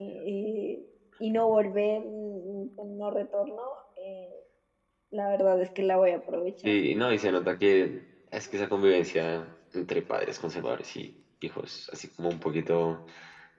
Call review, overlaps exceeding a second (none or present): none